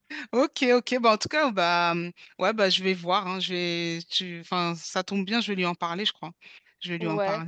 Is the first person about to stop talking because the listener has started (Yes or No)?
Yes